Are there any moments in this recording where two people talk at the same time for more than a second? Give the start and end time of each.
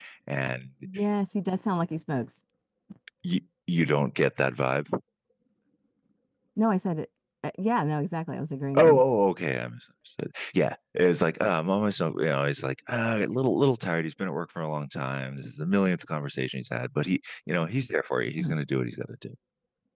none

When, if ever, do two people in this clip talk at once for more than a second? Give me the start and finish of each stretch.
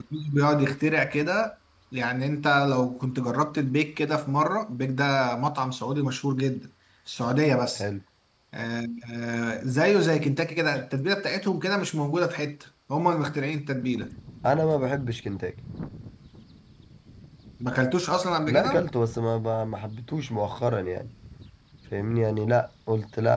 none

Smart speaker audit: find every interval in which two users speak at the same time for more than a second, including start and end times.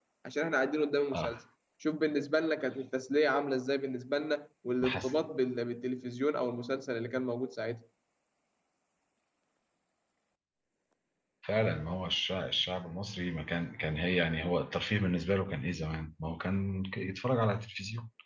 none

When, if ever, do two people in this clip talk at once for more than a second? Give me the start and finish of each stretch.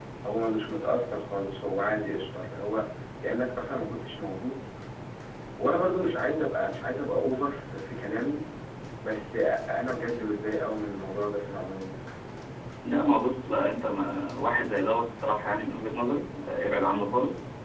none

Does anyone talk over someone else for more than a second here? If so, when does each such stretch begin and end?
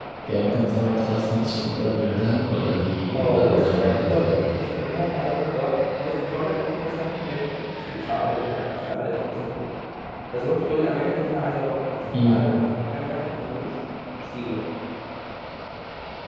3.1-4.6

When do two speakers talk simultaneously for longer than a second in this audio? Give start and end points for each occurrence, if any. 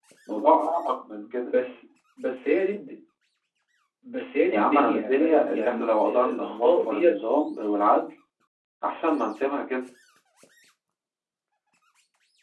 4.5-7.1

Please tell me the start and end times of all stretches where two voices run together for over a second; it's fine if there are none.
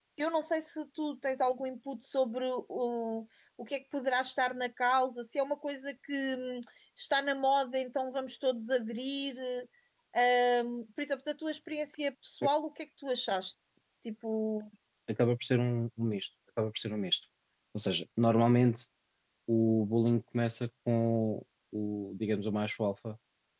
none

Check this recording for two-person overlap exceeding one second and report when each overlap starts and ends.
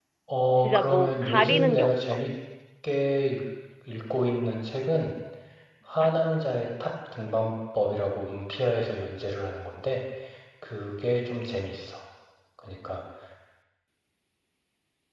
0.6-2.2

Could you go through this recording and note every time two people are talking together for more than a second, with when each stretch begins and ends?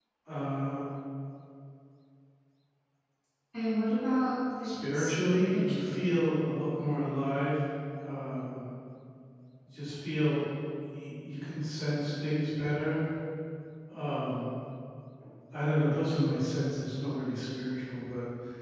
4.6-6.1

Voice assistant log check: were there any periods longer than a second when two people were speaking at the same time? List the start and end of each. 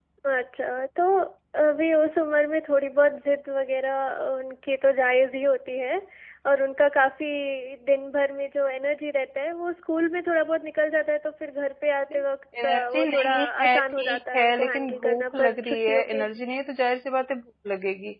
12.6-16.2

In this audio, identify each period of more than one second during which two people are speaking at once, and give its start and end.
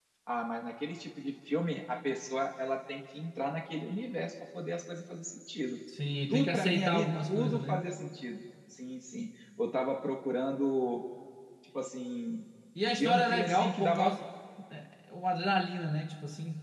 6.3-7.8, 12.9-14.2

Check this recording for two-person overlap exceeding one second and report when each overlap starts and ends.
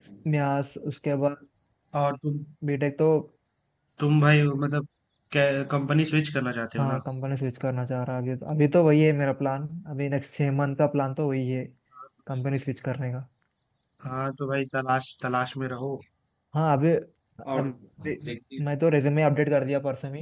none

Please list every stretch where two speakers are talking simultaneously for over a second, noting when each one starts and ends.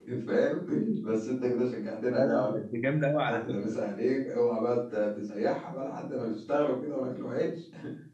none

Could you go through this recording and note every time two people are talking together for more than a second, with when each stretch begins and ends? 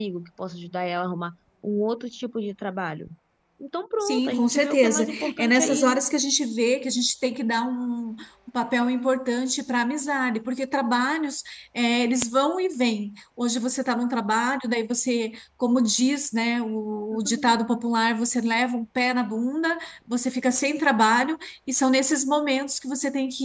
4.0-6.0

